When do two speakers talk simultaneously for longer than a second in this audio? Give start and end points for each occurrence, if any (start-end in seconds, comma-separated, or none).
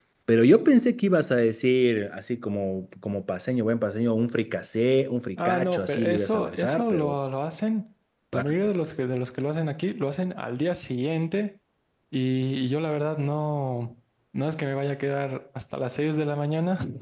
5.5-7.2